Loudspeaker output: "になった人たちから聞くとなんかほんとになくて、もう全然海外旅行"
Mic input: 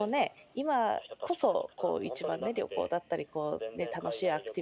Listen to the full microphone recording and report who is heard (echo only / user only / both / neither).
both